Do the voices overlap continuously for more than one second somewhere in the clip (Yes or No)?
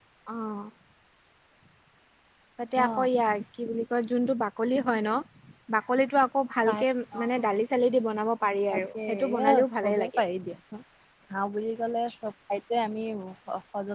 Yes